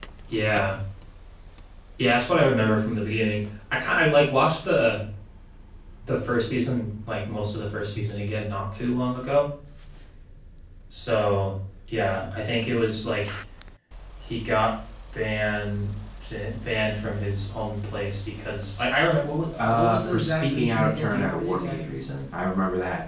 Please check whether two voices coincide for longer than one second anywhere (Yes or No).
Yes